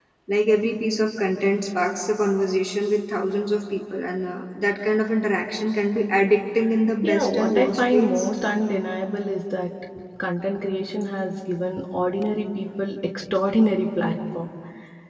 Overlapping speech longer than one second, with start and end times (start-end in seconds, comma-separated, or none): 7.0-8.3